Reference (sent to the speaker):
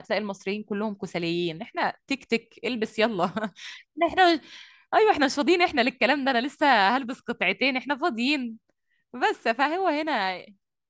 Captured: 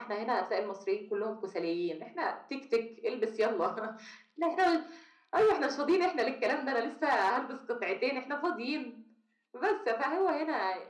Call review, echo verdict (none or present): present